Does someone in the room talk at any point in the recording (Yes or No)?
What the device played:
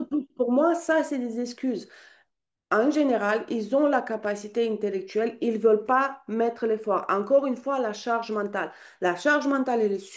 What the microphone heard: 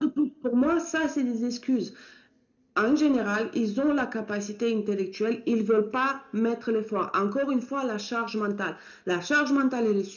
No